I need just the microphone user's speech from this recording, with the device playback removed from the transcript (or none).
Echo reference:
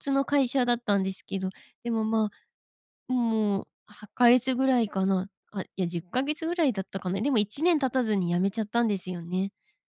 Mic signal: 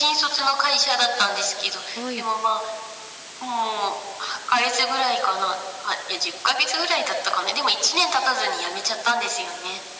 はい。